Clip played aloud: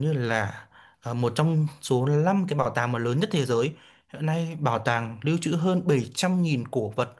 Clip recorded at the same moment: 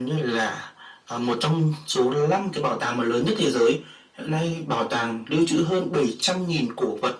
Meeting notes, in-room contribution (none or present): none